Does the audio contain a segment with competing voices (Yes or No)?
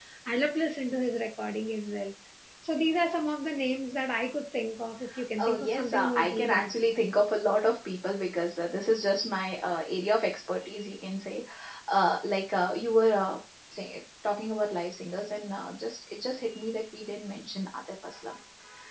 Yes